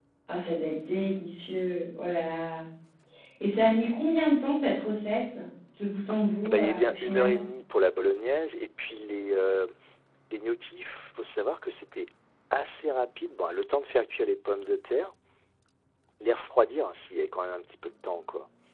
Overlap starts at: 6.1 s

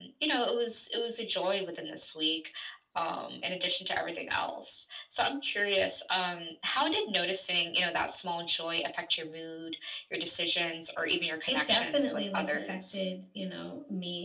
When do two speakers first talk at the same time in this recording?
11.5 s

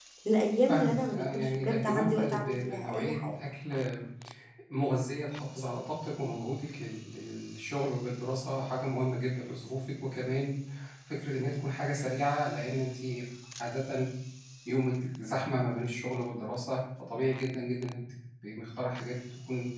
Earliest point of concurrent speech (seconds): 0.7 s

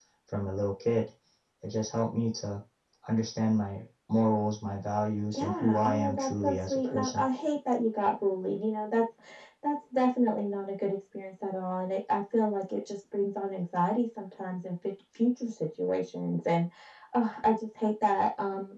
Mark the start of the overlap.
5.3 s

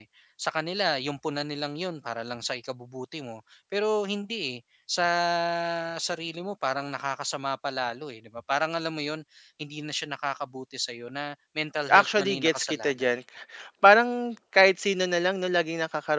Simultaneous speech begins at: 11.9 s

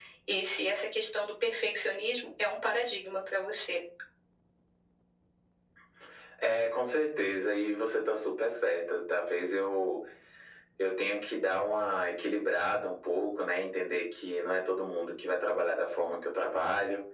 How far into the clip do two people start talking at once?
none

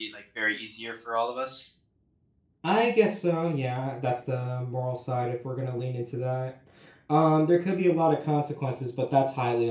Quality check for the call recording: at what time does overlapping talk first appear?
none

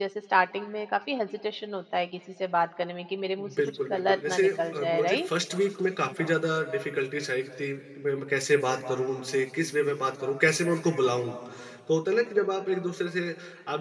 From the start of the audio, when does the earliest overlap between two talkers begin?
3.4 s

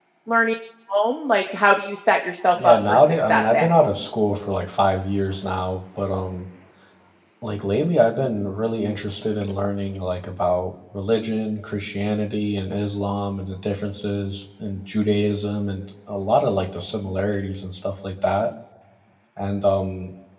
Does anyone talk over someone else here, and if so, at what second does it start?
2.5 s

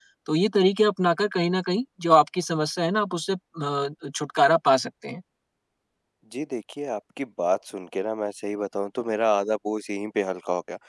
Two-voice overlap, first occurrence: none

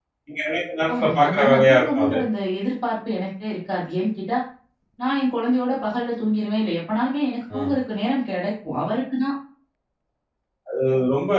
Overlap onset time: 1.0 s

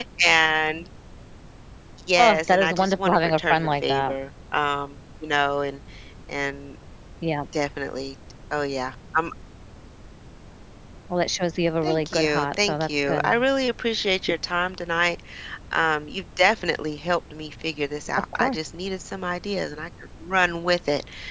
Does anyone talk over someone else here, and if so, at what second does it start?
2.2 s

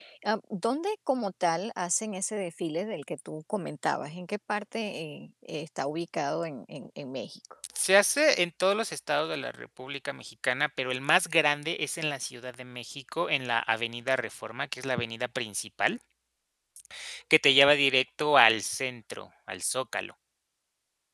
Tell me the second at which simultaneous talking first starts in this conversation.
none

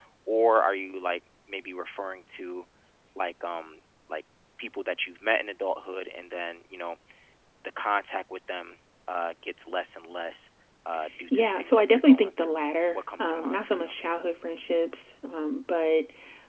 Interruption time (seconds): 11.3 s

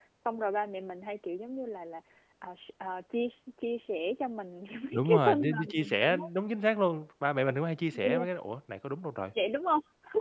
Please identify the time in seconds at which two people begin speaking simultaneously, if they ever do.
4.9 s

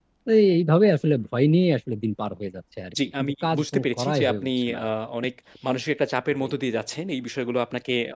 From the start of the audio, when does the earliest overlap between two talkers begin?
3.2 s

